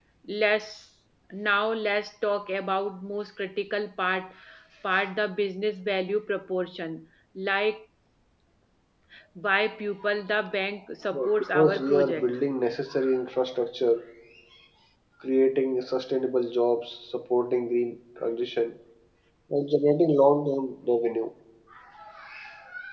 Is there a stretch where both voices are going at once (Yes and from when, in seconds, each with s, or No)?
Yes, from 11.1 s